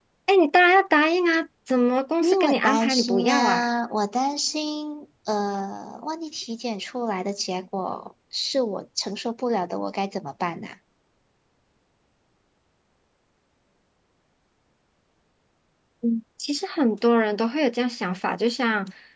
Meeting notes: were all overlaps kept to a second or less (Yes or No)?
No